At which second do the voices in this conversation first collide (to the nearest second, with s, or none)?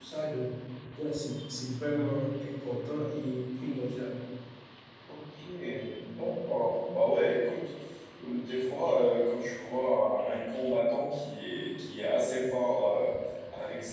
none